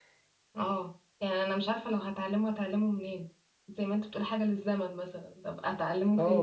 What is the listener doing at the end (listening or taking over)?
taking over